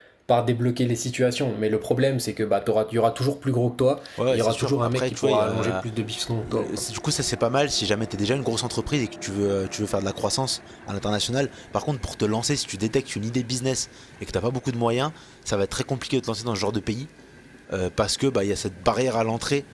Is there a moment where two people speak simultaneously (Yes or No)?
Yes